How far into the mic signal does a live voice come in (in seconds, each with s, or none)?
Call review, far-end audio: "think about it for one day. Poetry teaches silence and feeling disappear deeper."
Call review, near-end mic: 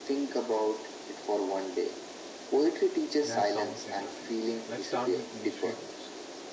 3.2 s